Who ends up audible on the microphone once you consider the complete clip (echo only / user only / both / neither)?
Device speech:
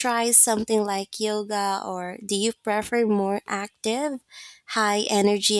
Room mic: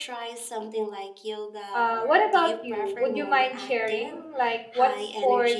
both